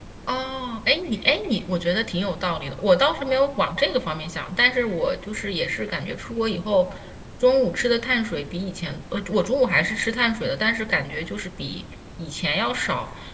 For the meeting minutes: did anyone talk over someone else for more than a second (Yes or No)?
No